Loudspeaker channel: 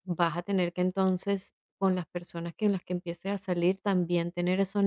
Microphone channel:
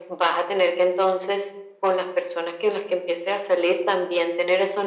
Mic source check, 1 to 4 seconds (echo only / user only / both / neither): echo only